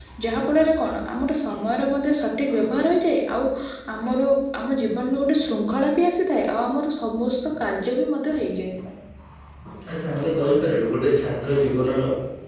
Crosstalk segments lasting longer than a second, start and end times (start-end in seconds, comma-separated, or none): none